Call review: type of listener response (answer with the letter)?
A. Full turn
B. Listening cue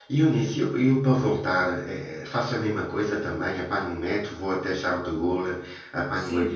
A